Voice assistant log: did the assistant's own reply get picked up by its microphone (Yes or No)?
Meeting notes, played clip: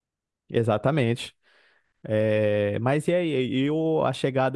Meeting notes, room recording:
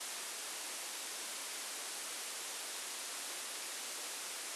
No